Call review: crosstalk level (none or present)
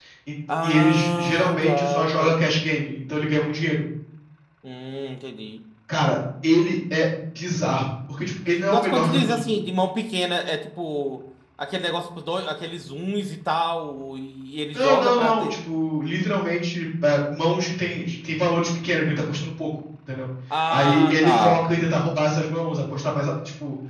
present